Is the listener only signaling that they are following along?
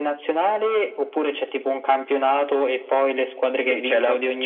No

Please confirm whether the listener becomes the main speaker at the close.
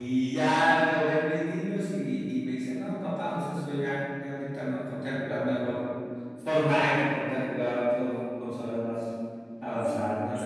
Yes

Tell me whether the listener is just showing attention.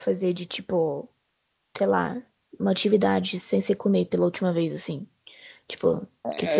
No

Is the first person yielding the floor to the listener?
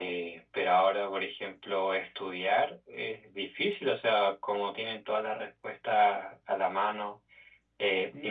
No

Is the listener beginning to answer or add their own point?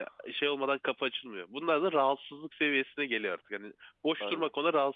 No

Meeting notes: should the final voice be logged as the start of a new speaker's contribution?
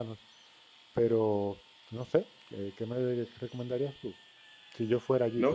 Yes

